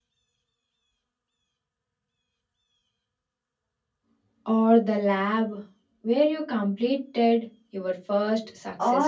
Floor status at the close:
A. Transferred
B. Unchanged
A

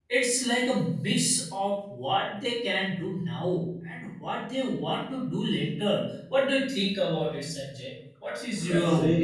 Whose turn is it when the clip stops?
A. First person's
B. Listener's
B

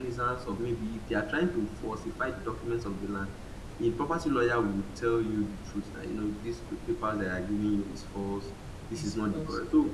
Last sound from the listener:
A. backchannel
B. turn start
A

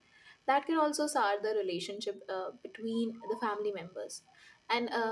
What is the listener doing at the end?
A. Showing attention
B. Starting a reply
A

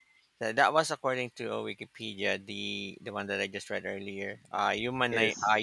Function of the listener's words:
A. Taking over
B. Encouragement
B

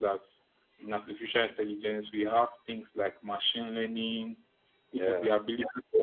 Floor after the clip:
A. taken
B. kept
B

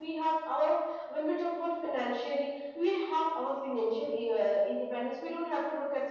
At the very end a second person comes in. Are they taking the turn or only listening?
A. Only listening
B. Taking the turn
A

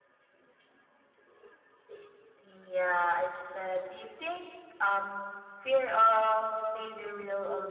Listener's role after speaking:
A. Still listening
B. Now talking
A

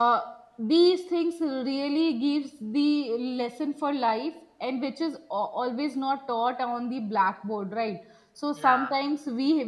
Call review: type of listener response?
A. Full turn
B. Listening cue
B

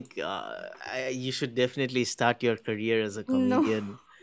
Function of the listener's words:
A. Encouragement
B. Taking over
A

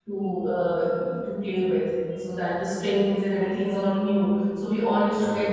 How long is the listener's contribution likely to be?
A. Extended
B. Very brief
B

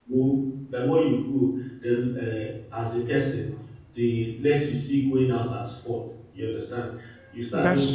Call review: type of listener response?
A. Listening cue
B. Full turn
A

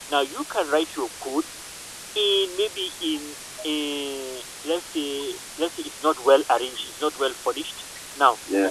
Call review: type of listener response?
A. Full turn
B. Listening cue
B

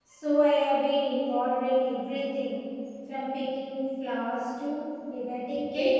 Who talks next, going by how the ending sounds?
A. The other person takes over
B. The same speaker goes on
A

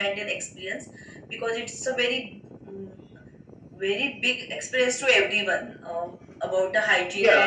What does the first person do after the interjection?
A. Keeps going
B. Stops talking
B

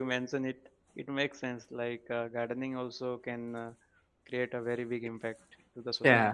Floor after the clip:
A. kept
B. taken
B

